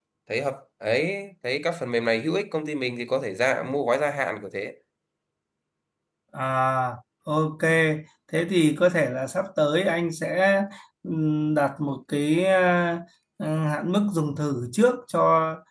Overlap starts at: none

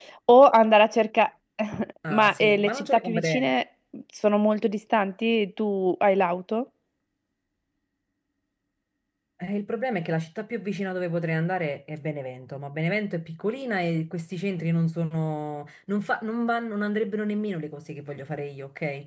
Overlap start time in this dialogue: 2.1 s

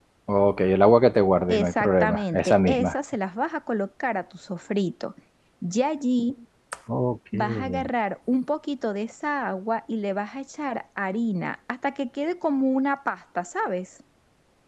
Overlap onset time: 1.5 s

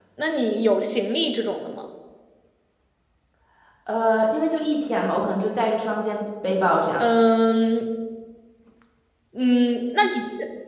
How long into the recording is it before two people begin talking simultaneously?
none

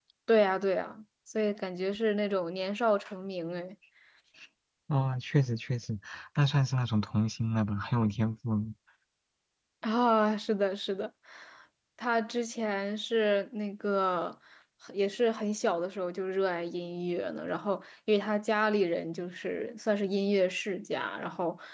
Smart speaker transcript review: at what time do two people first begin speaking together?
none

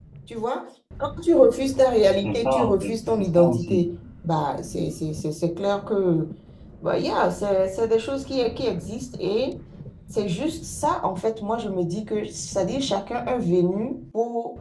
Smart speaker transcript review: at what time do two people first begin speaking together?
2.2 s

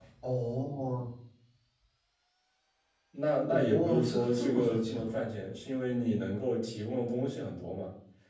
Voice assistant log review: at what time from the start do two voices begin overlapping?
3.5 s

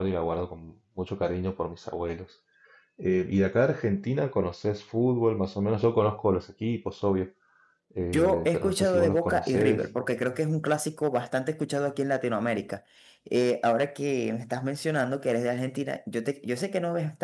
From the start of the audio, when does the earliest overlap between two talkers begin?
8.1 s

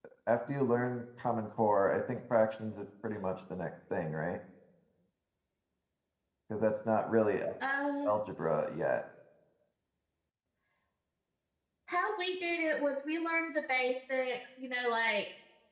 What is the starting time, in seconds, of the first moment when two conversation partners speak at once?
none

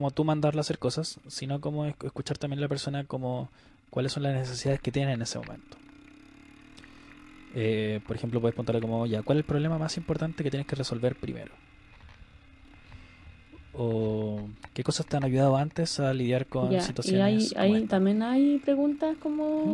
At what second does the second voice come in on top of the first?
16.6 s

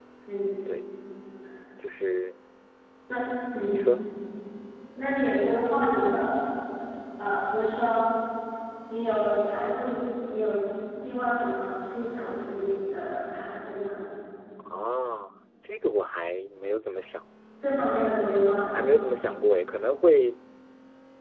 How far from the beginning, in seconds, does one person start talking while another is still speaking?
none

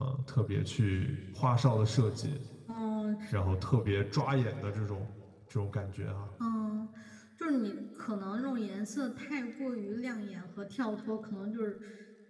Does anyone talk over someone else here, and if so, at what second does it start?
none

